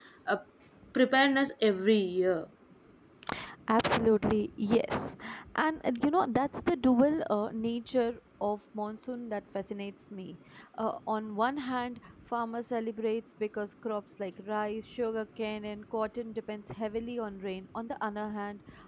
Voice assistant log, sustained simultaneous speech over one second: none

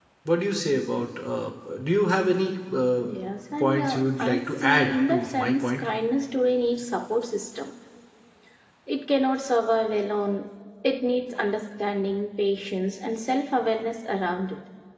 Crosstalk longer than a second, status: present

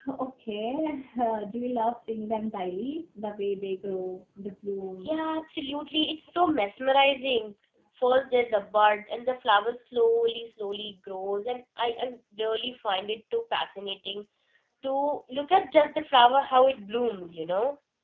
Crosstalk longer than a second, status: none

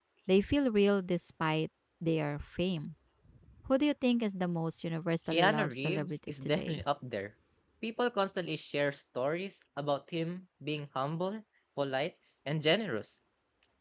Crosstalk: present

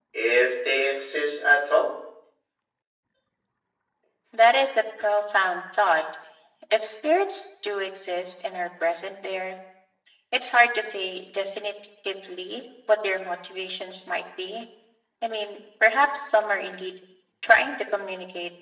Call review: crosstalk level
none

